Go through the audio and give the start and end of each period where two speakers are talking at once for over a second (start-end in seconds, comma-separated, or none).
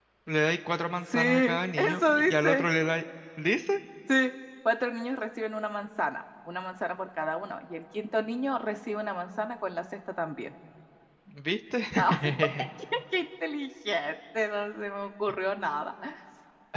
1.1-2.7